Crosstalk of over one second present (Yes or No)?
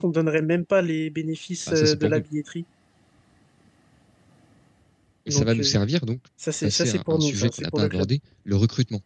Yes